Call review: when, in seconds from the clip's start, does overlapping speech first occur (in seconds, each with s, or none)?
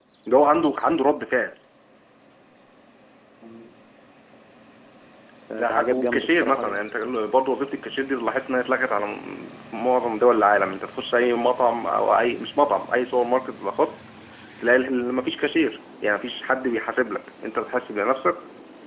5.5 s